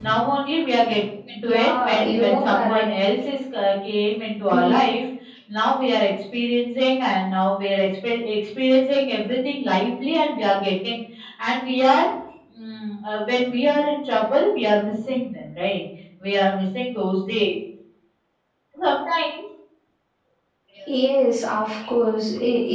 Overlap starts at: 1.5 s

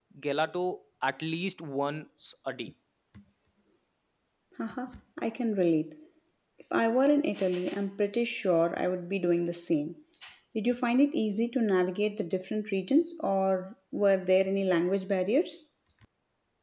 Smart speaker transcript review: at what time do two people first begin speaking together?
none

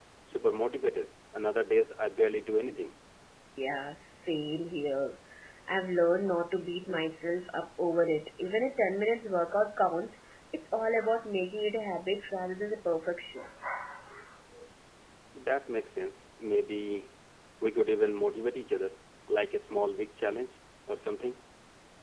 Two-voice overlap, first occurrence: none

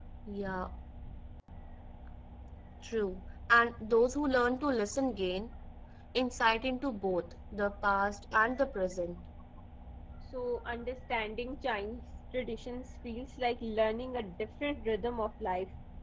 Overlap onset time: none

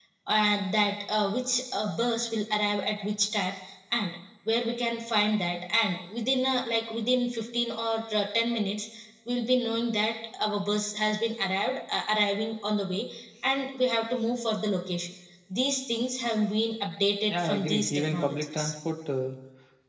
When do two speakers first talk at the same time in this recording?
17.3 s

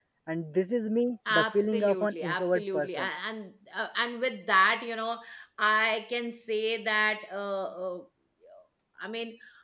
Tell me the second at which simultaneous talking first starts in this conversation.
1.3 s

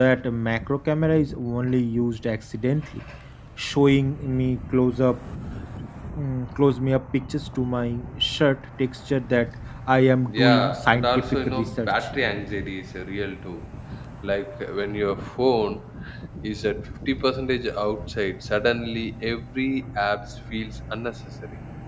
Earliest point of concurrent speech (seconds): 10.2 s

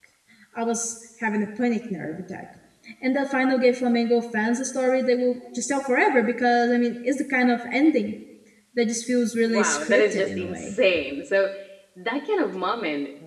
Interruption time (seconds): 9.5 s

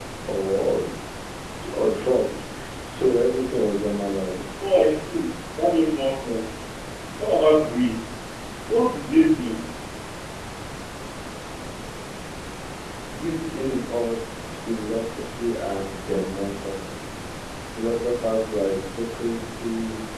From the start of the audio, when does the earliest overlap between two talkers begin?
none

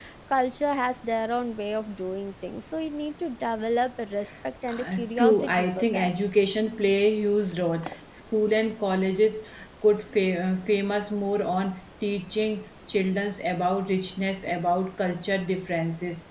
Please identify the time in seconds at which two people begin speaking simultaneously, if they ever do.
4.7 s

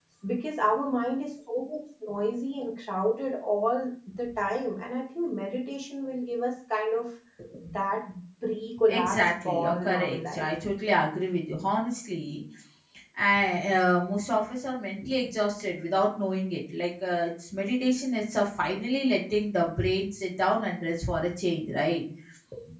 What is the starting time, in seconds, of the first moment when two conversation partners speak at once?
8.9 s

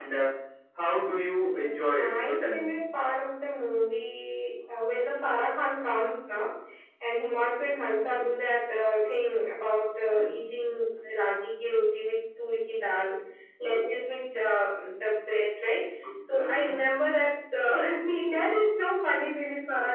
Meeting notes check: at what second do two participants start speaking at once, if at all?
1.4 s

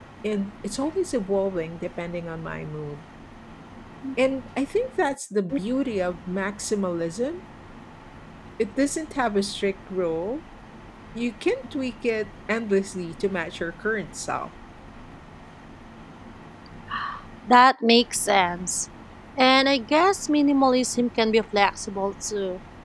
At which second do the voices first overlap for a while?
none

